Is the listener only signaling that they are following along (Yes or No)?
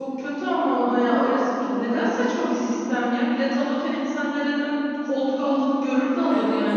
No